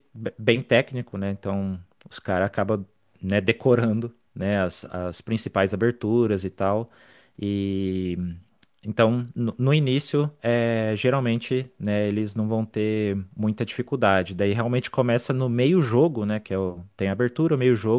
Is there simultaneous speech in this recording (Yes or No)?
No